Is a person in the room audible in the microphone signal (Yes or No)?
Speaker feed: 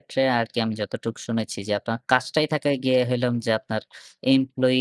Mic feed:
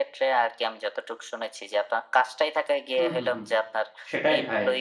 Yes